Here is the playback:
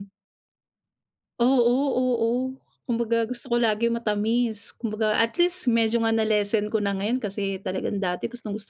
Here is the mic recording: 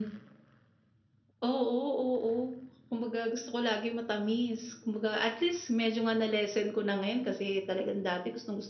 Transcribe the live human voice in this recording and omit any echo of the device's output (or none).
none